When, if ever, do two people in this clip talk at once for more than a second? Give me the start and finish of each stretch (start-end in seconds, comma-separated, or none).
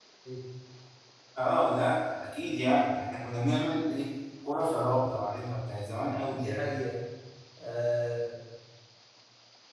none